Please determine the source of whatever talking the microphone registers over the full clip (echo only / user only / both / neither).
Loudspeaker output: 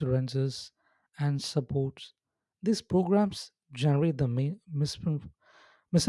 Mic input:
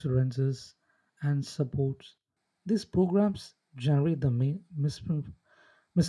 echo only